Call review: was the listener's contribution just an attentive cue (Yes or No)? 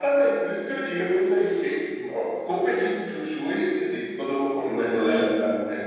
Yes